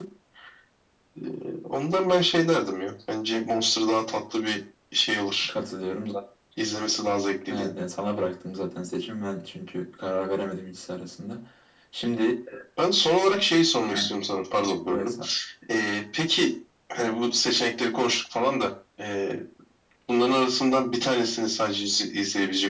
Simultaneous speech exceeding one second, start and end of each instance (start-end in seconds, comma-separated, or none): none